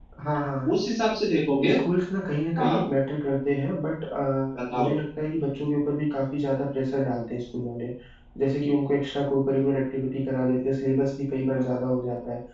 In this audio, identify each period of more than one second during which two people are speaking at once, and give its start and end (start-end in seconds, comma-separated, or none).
none